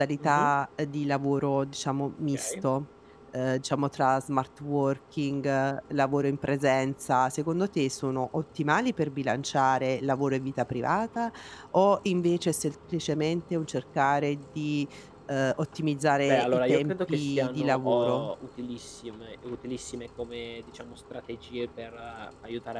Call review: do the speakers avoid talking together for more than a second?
No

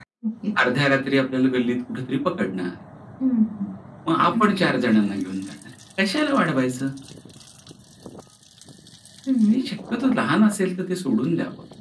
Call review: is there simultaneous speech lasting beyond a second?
No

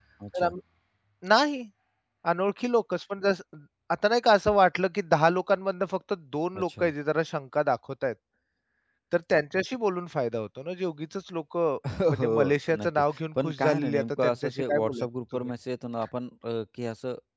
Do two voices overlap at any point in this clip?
Yes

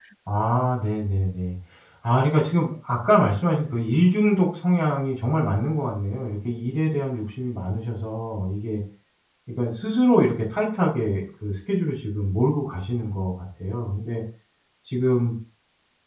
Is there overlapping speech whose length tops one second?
No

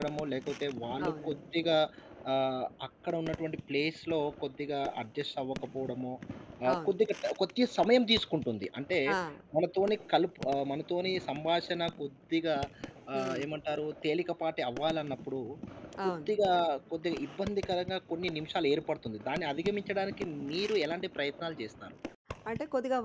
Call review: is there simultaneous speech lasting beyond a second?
No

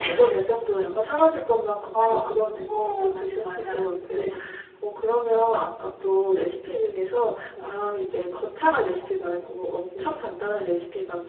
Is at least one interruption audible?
Yes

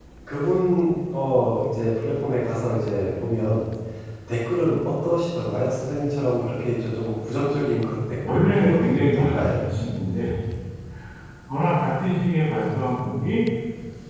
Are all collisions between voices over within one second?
No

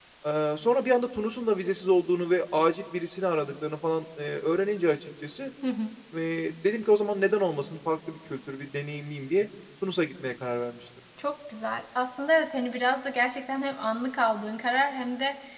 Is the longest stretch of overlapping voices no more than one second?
Yes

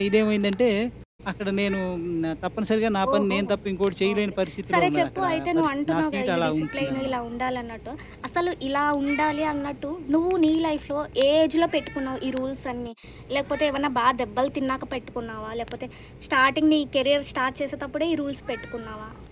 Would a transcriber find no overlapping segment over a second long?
No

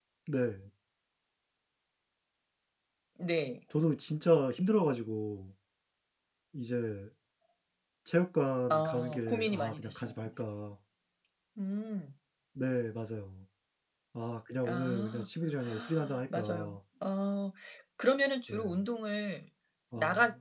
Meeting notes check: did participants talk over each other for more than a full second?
Yes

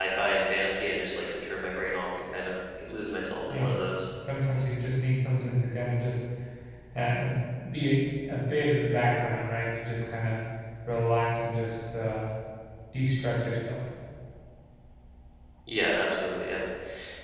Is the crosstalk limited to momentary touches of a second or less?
Yes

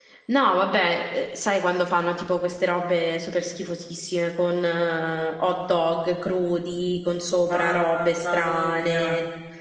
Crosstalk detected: Yes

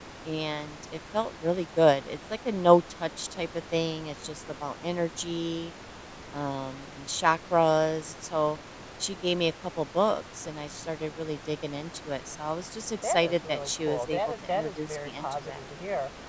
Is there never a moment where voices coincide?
No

